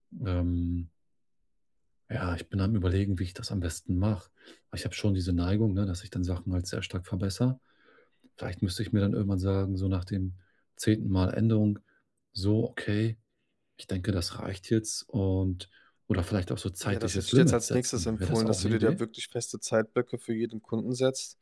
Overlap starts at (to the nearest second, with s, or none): 17 s